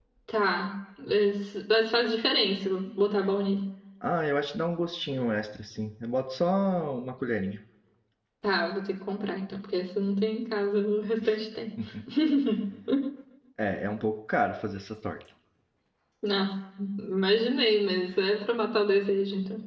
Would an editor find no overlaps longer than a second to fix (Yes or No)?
Yes